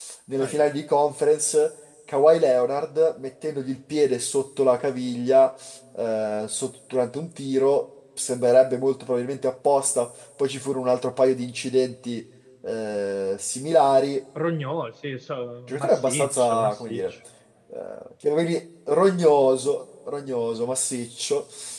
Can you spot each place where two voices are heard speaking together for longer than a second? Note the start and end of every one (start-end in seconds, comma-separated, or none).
15.7-17.0